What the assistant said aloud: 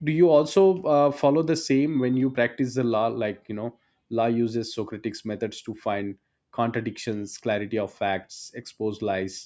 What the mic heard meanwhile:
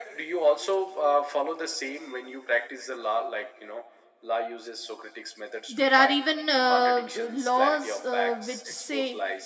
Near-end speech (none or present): present